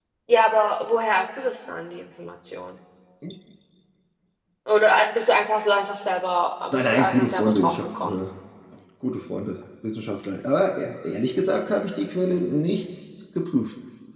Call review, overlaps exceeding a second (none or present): present